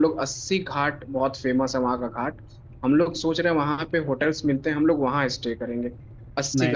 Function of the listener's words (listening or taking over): listening